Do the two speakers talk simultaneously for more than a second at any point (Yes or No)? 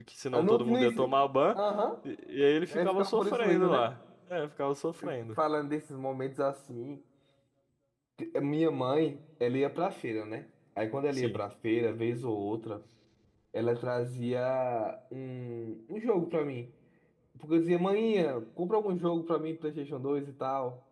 Yes